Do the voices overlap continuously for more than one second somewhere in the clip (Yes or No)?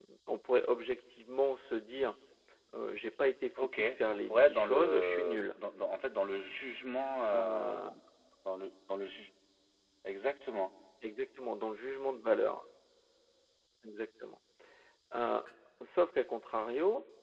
Yes